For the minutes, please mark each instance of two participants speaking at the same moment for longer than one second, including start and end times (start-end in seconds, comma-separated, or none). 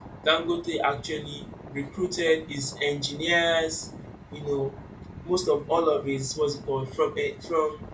none